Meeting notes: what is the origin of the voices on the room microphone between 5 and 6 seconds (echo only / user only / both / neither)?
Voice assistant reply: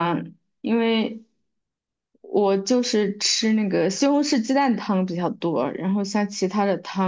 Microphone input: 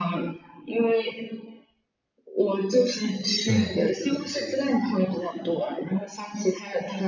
echo only